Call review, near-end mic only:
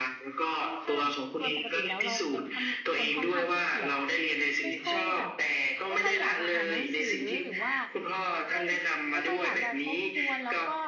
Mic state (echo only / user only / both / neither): both